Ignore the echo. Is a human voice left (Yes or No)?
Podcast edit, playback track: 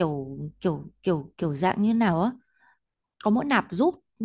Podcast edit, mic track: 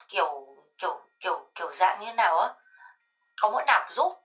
No